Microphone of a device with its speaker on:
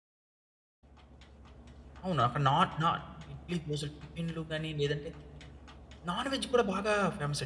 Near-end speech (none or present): present